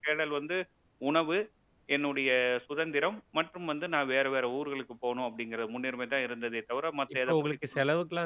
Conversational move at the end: taking over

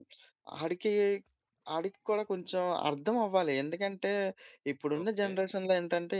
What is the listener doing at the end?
listening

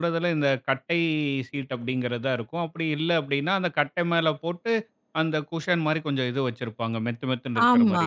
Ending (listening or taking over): taking over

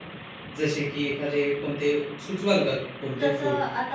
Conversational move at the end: taking over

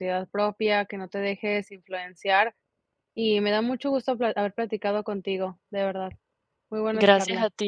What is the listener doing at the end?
taking over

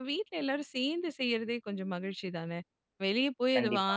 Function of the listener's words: listening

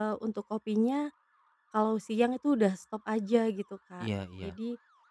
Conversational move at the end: listening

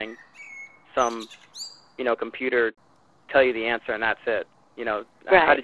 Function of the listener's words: taking over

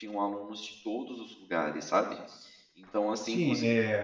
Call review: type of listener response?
taking over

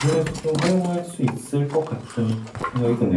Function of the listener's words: taking over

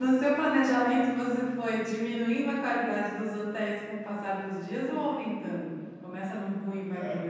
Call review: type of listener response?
taking over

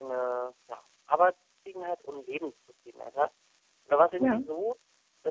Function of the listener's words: listening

